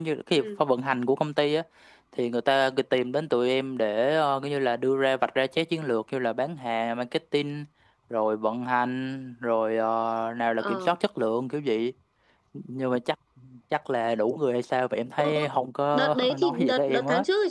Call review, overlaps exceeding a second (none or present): present